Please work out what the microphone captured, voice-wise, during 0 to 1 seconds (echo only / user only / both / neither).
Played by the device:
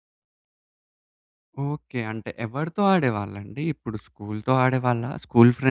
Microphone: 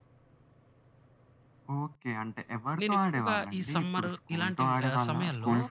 neither